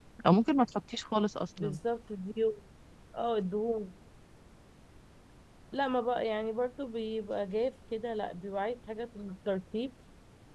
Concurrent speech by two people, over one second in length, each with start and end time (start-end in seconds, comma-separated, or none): none